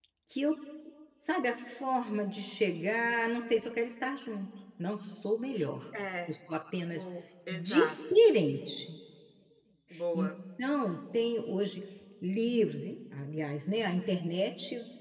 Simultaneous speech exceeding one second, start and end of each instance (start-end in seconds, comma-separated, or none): none